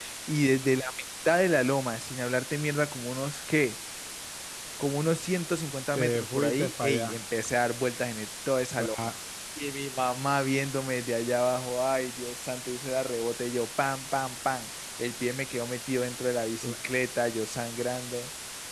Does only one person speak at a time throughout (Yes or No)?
No